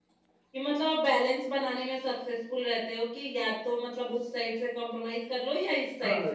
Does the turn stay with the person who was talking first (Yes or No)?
No